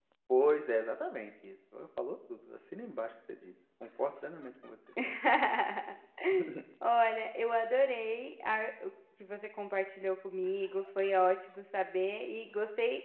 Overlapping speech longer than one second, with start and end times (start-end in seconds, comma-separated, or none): none